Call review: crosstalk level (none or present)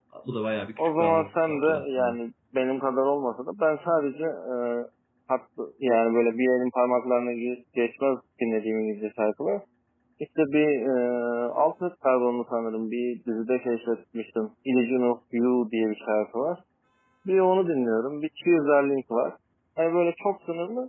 present